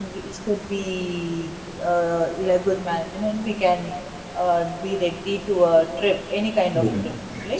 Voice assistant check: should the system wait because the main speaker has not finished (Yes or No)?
No